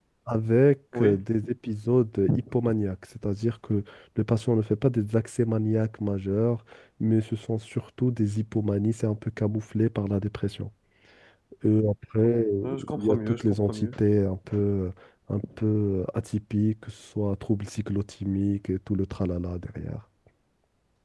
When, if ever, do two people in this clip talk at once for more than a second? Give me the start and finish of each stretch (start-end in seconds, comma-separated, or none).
12.6-13.9